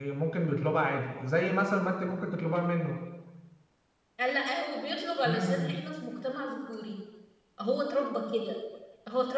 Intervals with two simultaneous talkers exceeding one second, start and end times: none

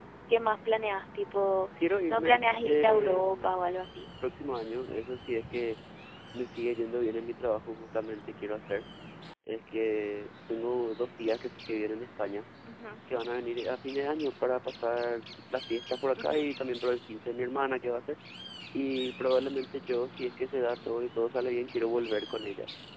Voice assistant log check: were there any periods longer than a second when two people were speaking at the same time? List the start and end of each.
2.1-3.6

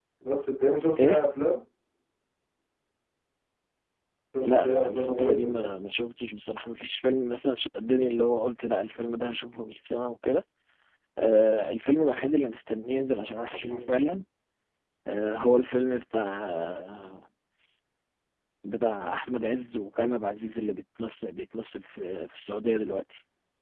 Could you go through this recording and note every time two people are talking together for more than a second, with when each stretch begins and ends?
4.4-5.7

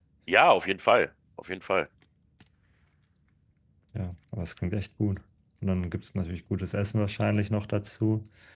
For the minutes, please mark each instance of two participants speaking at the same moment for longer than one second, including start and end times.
none

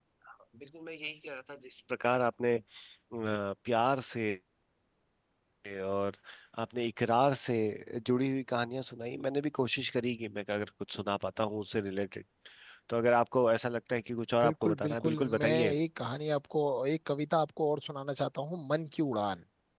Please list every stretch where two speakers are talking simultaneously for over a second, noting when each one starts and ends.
14.4-15.7

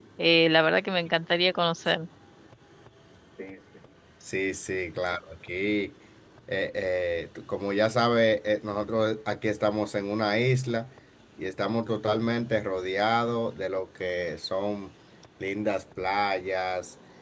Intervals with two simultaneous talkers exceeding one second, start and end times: none

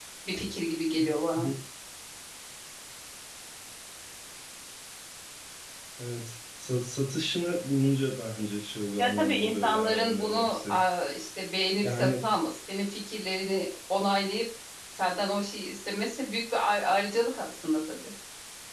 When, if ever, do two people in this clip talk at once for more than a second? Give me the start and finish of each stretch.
9.0-10.8

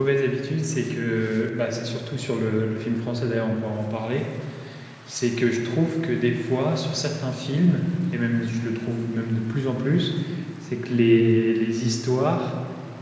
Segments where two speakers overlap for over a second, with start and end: none

